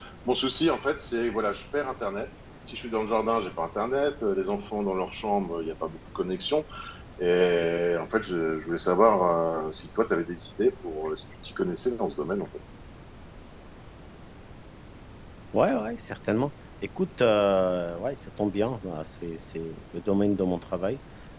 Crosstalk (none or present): none